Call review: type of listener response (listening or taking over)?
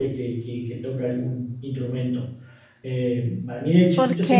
listening